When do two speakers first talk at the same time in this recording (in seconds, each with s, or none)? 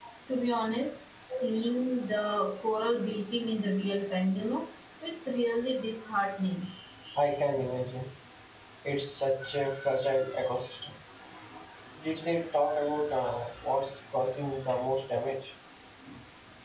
none